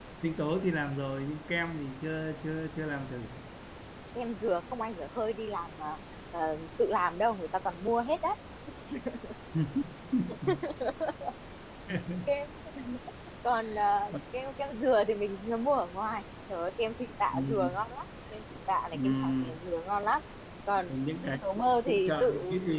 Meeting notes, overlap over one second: present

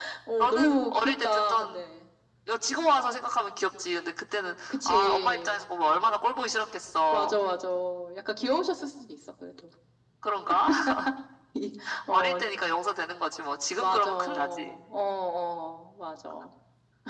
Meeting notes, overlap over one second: present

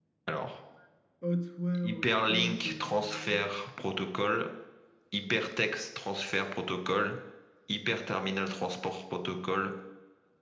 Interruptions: present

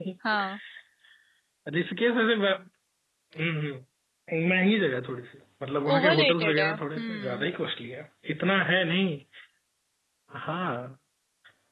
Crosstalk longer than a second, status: present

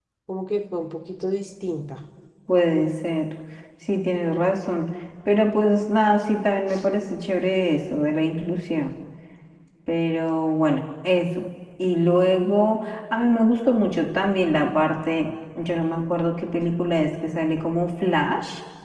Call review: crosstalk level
none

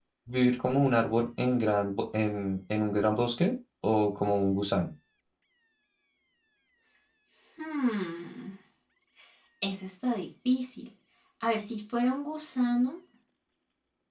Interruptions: none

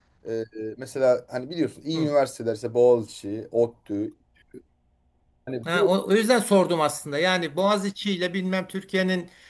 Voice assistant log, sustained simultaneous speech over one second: none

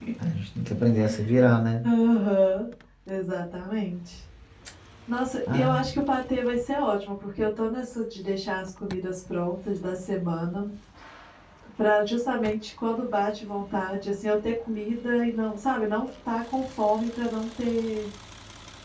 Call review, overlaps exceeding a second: none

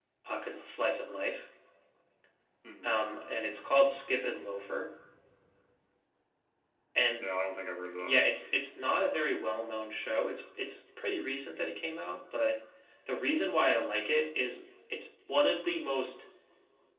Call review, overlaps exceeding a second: none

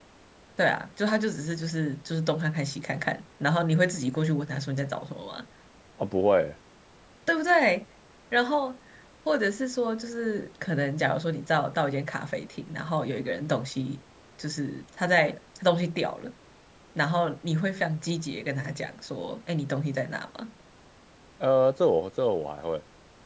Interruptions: none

